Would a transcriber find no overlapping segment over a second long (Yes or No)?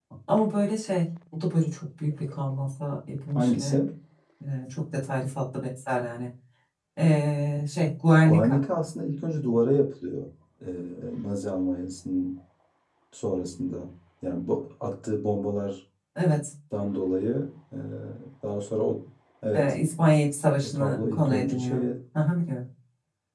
No